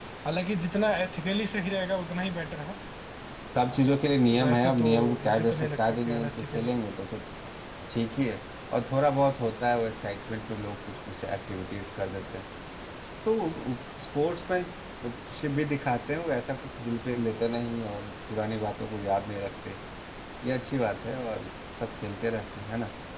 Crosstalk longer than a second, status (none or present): present